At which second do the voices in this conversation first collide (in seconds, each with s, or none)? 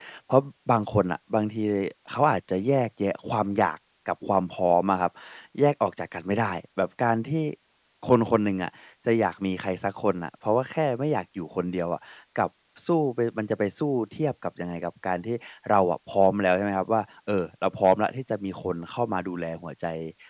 none